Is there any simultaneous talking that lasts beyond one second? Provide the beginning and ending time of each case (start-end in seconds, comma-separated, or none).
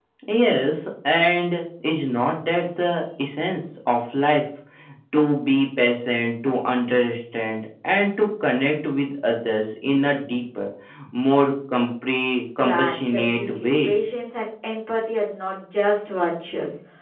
12.6-13.9